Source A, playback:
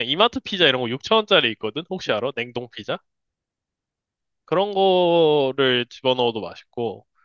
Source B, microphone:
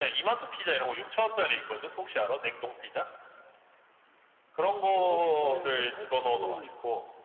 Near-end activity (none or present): present